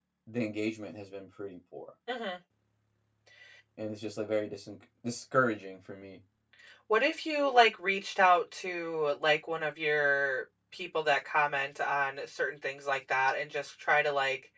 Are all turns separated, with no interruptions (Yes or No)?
Yes